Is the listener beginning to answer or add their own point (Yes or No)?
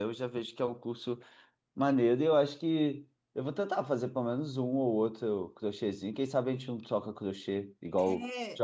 Yes